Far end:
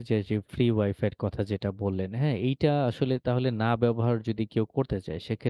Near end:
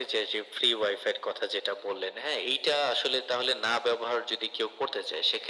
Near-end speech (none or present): none